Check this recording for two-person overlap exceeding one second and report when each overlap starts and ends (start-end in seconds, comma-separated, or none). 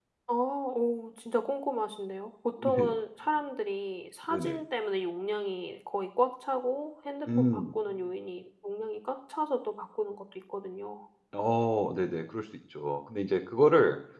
none